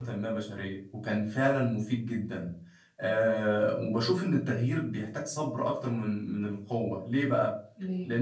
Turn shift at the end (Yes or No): No